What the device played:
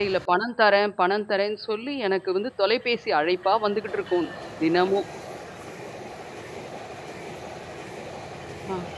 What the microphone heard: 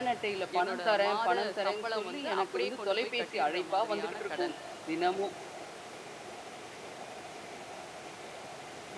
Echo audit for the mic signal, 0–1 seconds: both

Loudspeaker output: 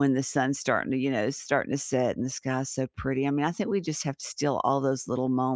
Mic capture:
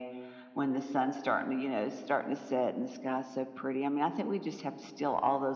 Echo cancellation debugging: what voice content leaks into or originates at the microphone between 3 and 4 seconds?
echo only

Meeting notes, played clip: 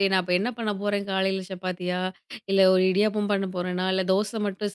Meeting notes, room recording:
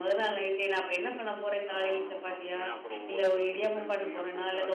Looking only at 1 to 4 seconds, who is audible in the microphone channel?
both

